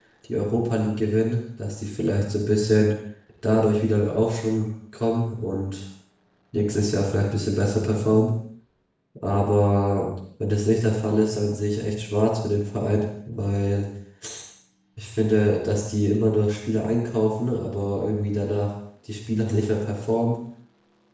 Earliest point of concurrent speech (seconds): none

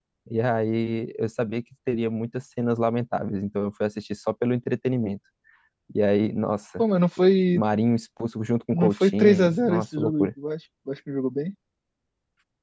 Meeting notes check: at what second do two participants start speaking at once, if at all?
8.7 s

